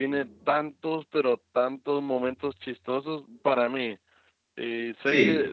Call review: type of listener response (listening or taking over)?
listening